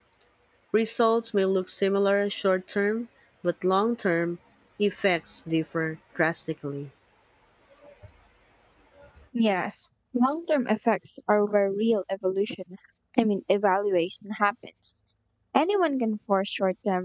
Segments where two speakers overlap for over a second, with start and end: none

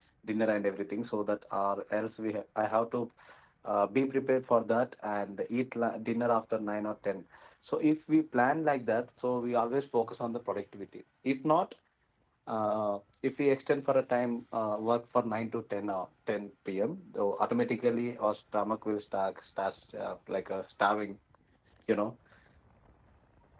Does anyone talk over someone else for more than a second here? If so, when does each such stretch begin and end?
none

